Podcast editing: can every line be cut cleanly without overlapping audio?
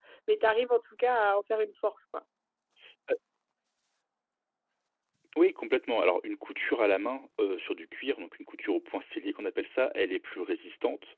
Yes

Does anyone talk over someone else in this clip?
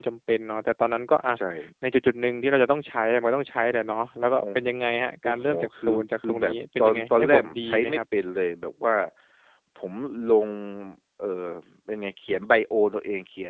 Yes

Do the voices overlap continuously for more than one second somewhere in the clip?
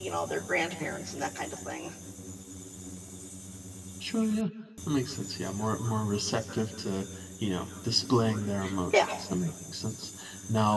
No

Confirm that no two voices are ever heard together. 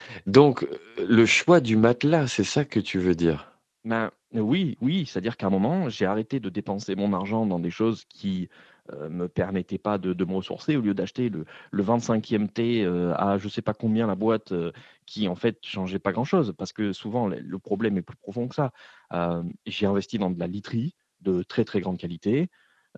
Yes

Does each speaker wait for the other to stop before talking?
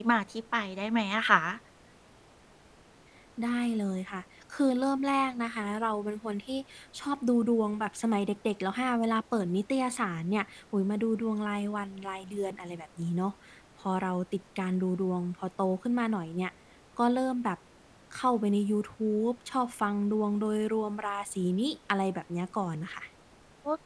Yes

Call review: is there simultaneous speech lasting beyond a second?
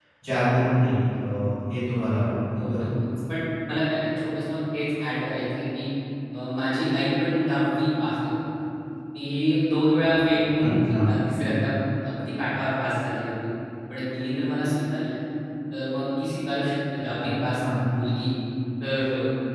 No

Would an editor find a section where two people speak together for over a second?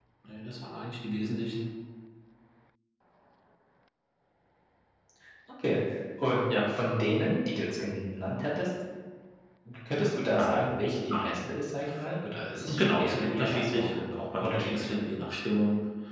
Yes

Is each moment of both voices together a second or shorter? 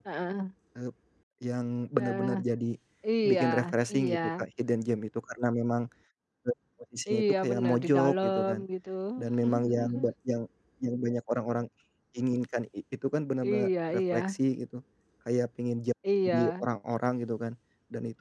No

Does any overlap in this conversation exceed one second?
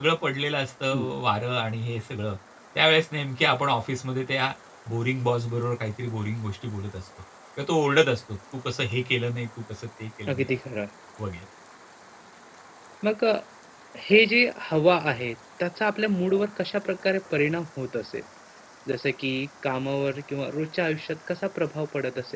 No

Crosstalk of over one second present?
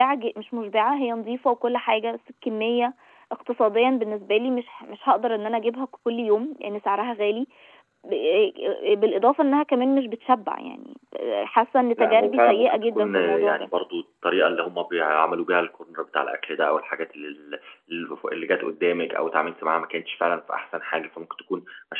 Yes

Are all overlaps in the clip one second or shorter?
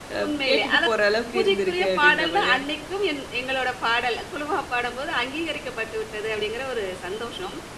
No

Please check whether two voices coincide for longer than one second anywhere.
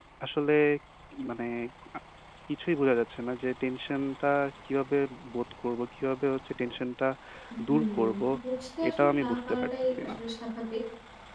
Yes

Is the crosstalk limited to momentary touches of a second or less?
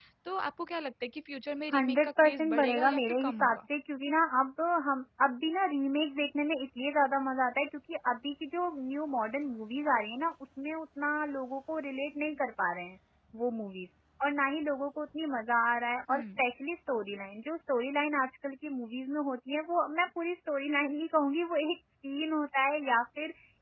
No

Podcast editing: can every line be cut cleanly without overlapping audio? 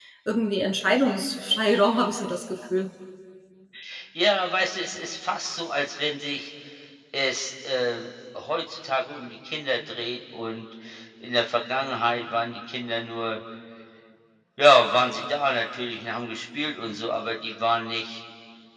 Yes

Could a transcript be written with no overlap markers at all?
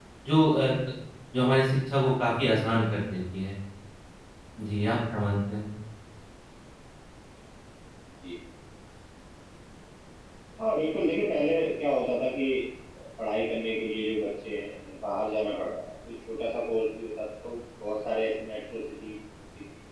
Yes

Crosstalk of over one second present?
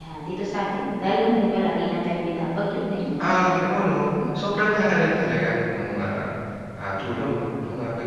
No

